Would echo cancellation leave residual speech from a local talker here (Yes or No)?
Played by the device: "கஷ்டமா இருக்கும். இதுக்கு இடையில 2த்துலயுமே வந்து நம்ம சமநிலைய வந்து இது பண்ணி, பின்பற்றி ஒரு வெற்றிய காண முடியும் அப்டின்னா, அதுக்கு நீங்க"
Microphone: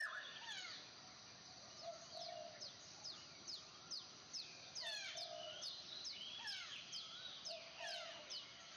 No